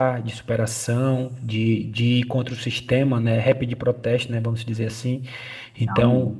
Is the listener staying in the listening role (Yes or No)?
Yes